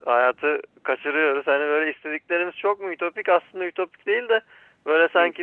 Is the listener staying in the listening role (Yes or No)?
Yes